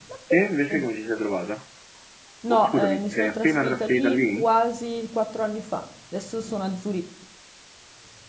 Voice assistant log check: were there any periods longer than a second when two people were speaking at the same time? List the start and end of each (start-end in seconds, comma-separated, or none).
2.5-4.5